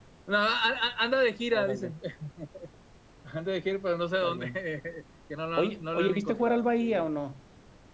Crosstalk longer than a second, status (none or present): present